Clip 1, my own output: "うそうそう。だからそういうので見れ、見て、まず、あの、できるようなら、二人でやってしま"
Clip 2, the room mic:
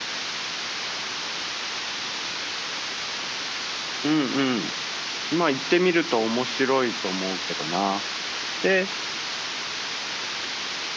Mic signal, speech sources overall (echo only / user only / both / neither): user only